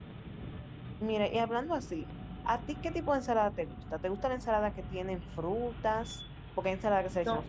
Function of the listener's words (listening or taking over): listening